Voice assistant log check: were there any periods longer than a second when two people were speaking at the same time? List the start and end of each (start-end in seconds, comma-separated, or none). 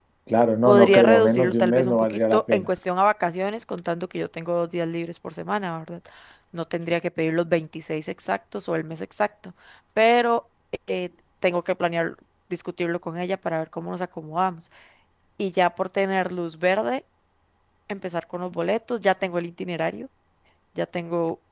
0.7-2.7